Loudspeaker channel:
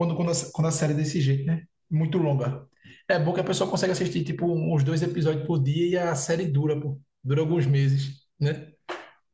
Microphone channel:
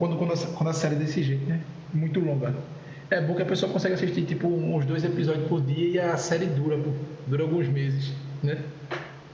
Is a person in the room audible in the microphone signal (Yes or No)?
No